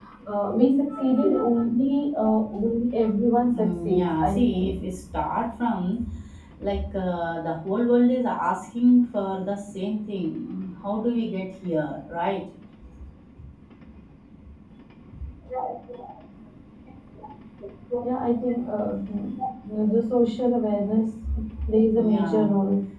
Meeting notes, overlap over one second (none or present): present